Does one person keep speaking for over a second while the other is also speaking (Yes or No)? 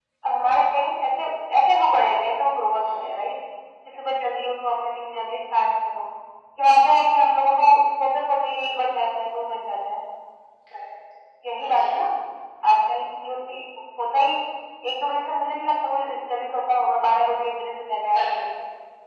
No